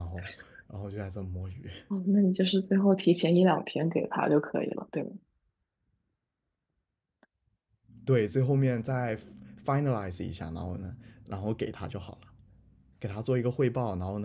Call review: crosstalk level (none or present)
none